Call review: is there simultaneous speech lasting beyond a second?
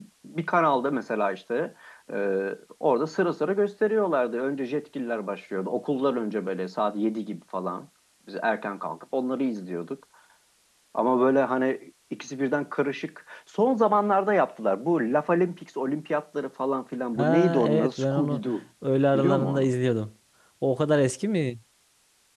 Yes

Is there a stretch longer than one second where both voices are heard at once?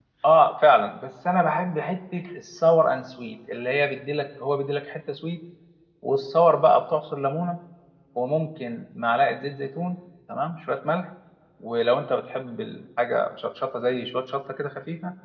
No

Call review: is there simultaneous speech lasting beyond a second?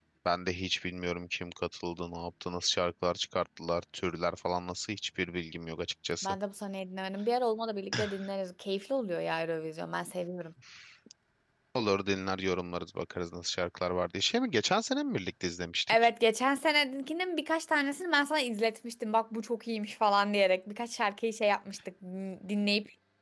No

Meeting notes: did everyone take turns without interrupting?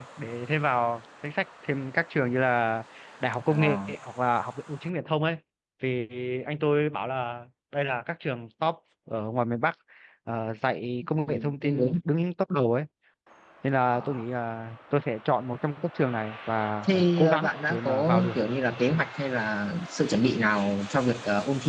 No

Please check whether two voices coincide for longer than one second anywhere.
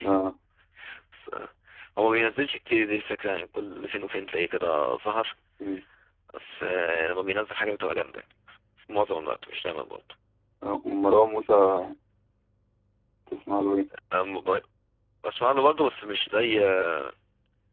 No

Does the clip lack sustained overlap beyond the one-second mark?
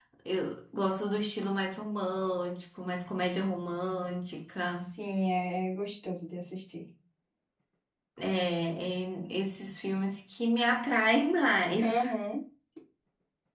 Yes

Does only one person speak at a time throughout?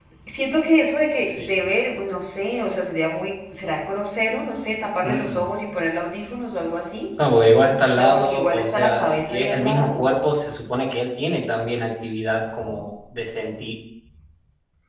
No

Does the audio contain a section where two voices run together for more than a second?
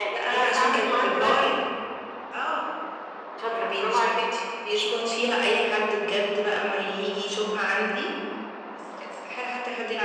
Yes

